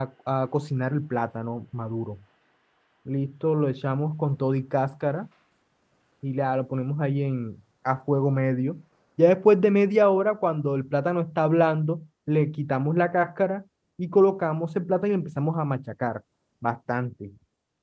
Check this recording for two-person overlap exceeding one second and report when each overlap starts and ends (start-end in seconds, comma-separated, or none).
none